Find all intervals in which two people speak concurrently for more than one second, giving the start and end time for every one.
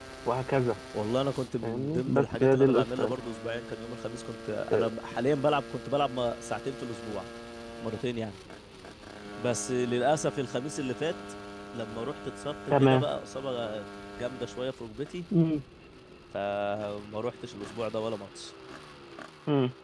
1.6-3.1

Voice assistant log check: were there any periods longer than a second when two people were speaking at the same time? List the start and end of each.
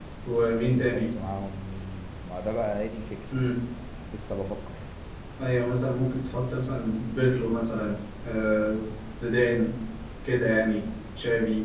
none

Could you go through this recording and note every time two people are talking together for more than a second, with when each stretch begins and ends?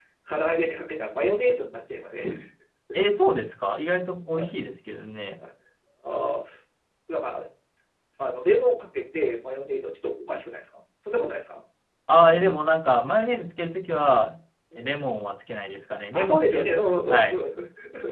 16.1-17.4

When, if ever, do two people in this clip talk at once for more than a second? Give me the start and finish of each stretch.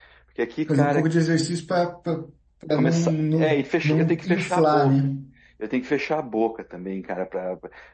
2.8-5.0

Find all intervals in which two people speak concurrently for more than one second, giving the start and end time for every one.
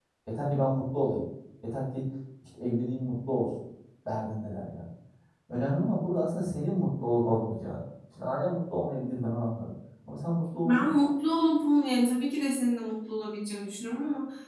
none

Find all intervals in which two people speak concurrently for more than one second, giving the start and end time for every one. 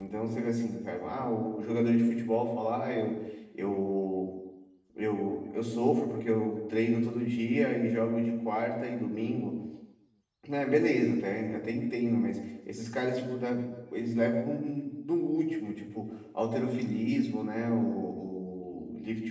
none

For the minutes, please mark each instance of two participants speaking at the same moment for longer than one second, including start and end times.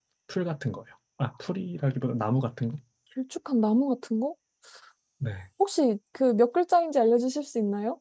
none

